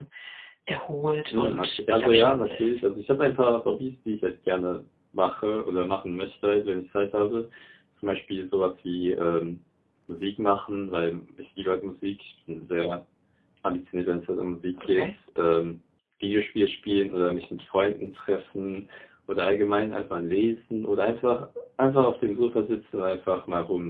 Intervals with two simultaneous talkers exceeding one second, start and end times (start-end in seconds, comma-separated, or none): 1.3-2.8